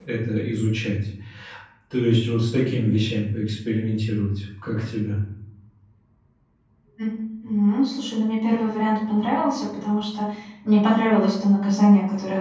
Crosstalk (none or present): none